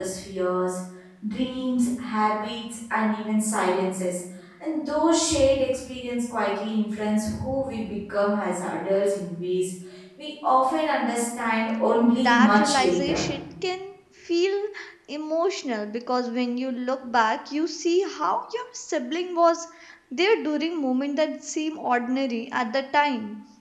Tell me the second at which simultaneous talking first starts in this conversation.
12.0 s

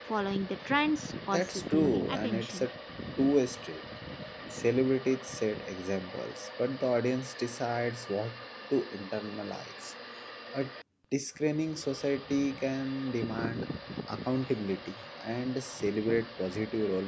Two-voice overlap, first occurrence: 1.3 s

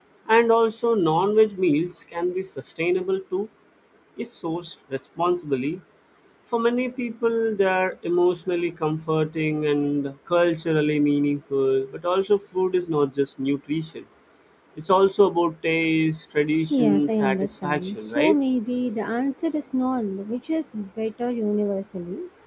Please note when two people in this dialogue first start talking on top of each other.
16.7 s

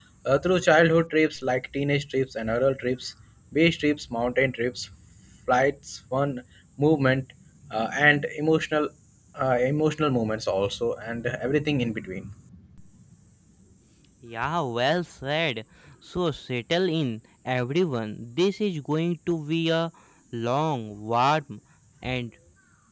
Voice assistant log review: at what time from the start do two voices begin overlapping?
none

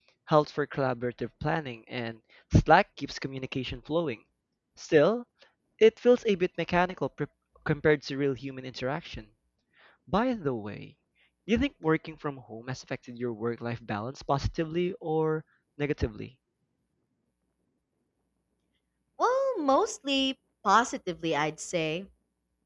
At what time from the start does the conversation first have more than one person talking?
none

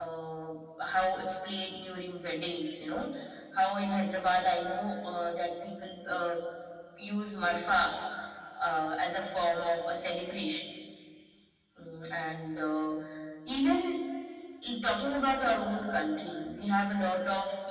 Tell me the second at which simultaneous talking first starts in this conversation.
none

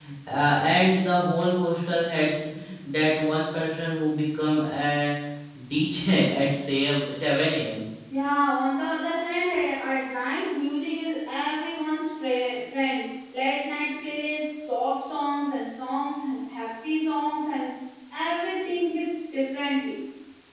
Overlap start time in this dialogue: none

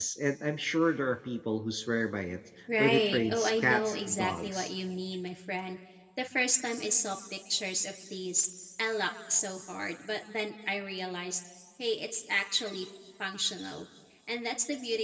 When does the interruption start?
2.7 s

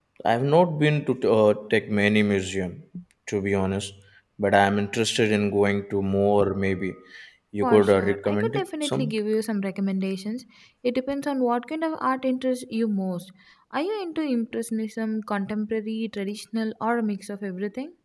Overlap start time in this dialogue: 7.6 s

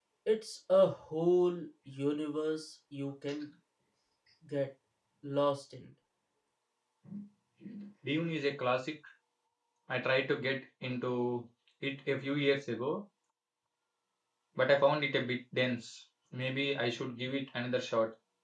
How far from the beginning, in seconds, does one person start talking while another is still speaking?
none

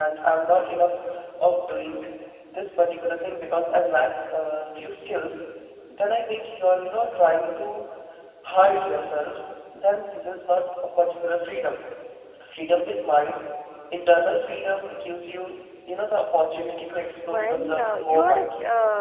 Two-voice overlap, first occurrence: 17.2 s

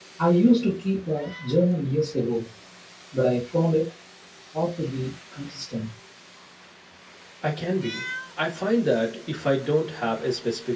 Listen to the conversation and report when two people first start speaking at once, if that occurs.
none

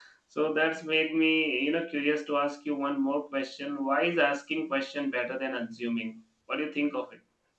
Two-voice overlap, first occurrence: none

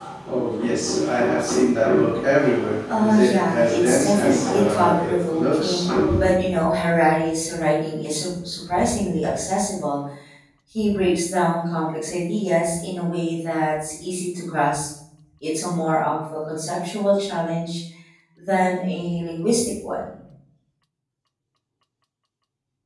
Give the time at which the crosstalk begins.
2.9 s

